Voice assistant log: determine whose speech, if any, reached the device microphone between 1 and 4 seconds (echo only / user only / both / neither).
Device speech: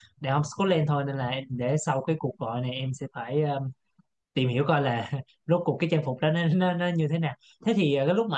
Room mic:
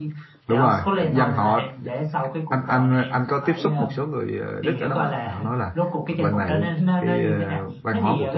both